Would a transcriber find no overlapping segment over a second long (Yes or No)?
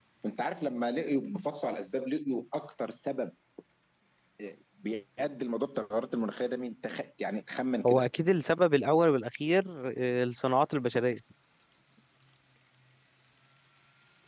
Yes